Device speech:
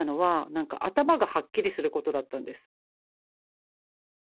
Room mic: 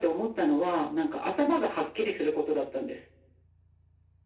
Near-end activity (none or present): none